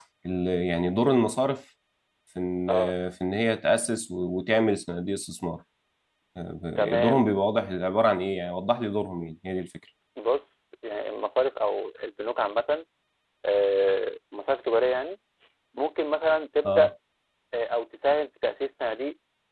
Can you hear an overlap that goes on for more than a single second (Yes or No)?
No